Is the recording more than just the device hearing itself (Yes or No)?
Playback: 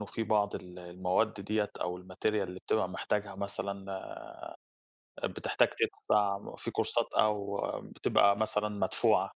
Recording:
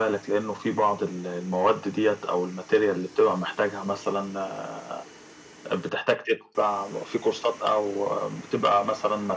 No